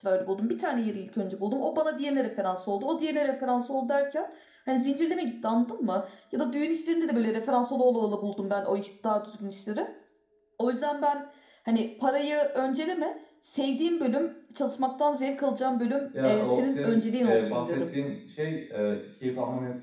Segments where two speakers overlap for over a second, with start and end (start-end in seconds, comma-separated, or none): 16.2-17.9